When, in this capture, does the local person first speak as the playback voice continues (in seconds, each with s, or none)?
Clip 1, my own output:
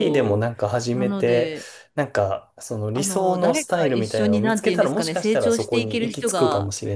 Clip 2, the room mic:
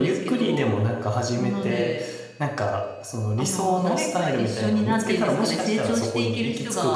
none